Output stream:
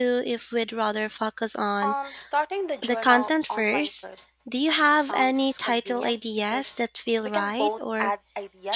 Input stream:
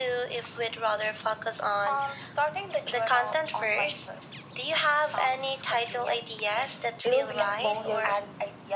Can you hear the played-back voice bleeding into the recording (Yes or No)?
Yes